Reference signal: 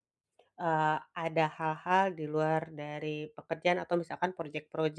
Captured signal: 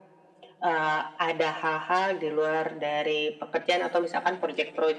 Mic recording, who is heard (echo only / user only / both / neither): echo only